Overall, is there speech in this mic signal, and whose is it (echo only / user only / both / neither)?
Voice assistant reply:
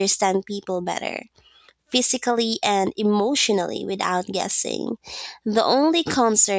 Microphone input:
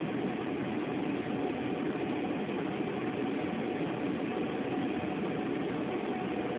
neither